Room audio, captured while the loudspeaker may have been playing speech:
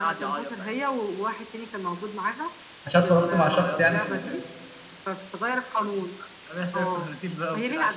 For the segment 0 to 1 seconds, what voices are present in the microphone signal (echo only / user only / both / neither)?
echo only